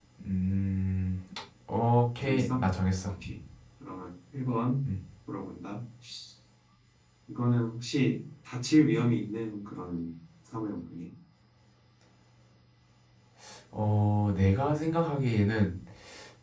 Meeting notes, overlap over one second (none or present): none